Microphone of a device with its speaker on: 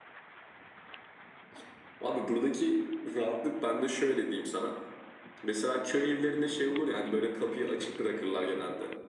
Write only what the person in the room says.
none

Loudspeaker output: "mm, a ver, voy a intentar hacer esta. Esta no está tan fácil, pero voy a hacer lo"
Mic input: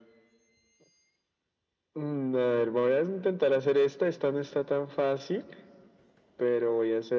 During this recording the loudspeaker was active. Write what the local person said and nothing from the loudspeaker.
none

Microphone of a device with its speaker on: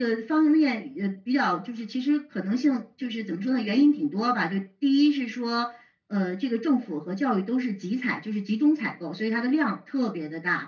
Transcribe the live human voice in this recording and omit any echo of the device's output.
none

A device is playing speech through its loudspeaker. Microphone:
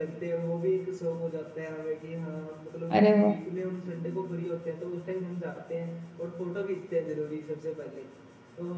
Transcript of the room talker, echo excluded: अरे वाह

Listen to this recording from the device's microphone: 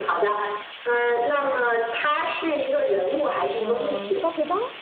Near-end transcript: 呃，削皮刀，

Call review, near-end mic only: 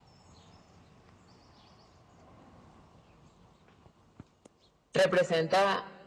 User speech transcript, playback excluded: representa

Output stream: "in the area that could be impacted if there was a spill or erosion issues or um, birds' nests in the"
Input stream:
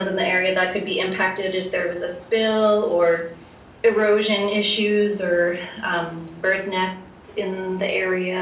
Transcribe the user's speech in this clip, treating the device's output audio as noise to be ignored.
none

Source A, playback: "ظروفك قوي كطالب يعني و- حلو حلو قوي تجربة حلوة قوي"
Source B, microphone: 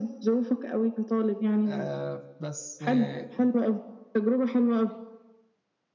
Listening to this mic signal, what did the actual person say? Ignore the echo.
آه بس آه

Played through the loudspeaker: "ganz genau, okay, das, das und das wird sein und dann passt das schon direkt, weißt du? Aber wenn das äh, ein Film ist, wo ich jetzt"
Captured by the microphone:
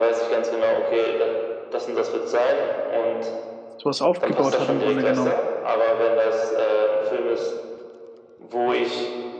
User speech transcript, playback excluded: sowas aufgebaut hat im Grunde genommen.

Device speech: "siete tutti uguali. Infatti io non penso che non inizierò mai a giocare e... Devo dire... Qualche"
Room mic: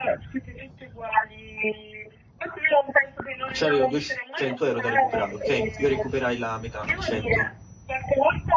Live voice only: c'avevo 200 euro da recuperare, ok? Io recuperai la metà, 100.

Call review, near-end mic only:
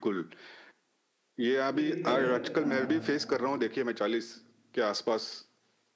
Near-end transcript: ये दिक्कत है हाँ

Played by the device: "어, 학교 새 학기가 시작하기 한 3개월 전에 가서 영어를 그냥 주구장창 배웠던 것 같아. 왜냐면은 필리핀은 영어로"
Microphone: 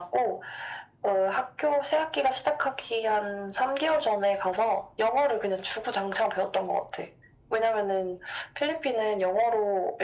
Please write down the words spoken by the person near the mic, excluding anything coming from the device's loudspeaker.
none

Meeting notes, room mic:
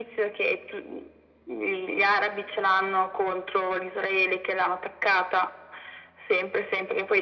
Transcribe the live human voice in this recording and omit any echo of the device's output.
none

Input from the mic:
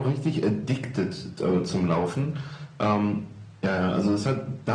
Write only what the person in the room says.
none

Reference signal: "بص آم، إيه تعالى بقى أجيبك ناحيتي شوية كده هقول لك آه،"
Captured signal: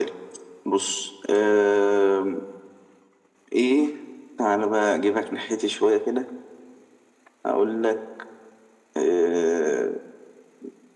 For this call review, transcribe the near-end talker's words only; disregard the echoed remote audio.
none

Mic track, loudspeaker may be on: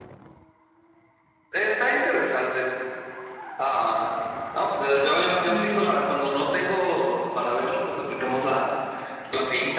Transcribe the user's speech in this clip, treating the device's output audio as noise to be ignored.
Sí,

